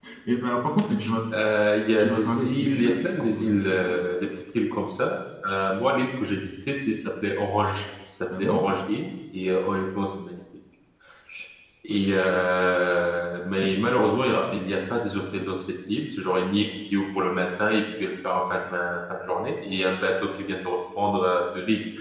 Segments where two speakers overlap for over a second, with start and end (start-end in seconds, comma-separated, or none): 2.0-3.9